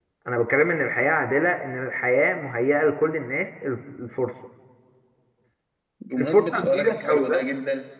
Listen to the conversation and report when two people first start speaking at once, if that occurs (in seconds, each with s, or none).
6.2 s